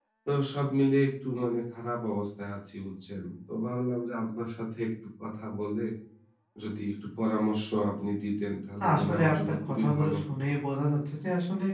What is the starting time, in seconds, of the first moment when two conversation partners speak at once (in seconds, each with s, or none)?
8.8 s